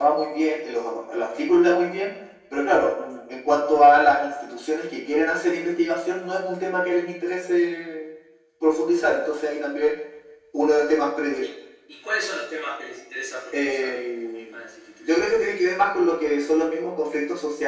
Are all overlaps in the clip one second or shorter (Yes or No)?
Yes